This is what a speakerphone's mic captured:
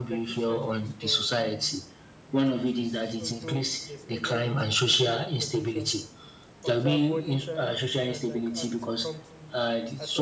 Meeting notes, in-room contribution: present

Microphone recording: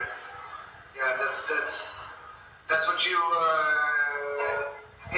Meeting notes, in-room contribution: none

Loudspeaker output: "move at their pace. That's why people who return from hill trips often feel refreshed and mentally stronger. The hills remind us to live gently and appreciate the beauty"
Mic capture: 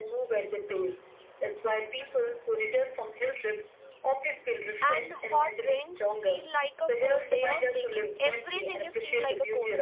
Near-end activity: present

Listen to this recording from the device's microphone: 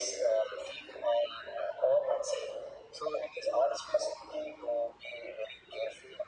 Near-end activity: none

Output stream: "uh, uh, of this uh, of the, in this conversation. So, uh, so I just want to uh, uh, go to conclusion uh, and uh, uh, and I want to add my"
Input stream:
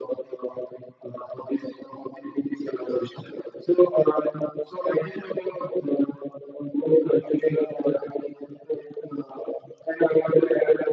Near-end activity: none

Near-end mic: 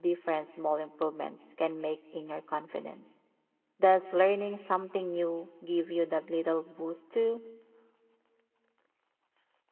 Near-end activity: present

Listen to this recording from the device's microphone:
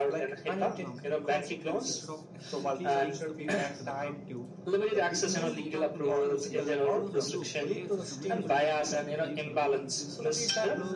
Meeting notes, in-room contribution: present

